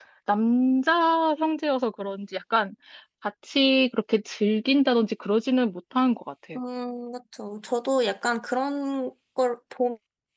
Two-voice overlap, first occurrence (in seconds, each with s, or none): none